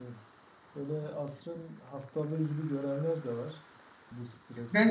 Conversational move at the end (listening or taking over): taking over